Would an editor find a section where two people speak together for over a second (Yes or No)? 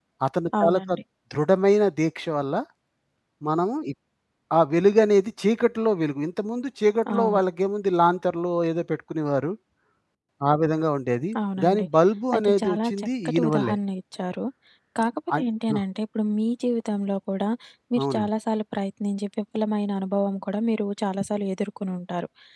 Yes